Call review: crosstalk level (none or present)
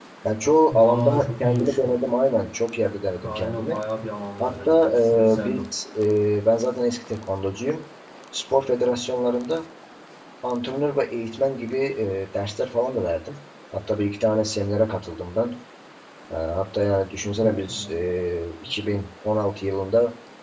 present